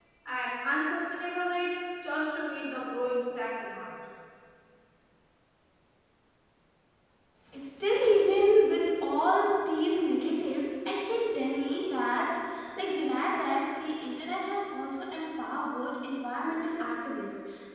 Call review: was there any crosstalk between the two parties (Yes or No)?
No